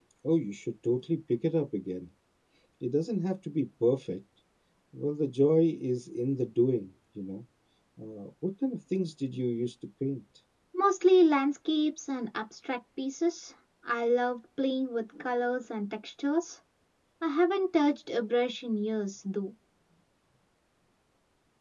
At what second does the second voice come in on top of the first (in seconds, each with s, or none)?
none